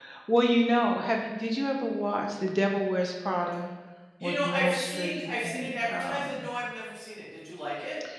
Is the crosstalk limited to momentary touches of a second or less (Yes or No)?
No